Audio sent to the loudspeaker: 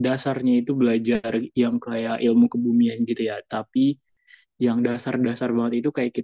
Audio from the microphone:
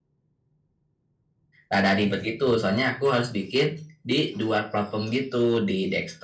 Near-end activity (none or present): present